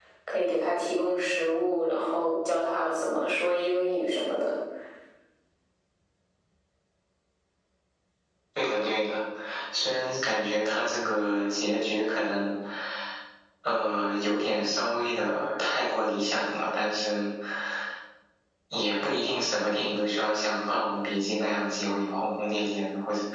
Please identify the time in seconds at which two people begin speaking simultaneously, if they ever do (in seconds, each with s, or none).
none